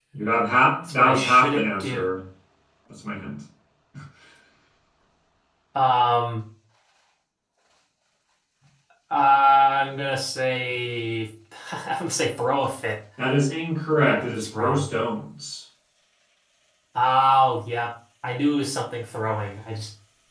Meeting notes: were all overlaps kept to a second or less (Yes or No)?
No